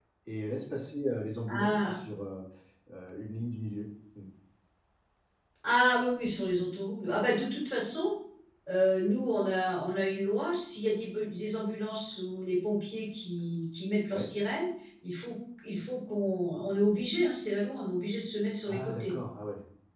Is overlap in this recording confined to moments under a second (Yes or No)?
Yes